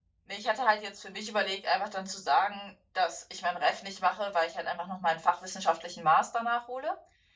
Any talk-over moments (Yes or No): No